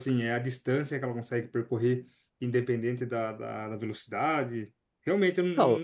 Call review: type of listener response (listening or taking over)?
taking over